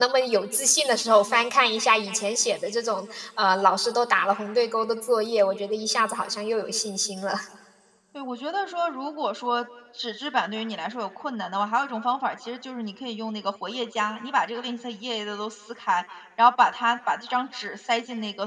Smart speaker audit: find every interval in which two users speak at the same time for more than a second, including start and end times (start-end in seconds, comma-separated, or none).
none